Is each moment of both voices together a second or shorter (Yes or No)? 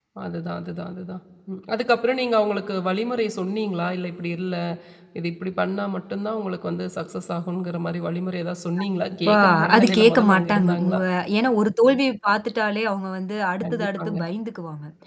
No